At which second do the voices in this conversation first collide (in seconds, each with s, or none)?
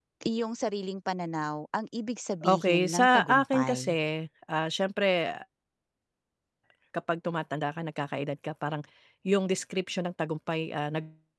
2.4 s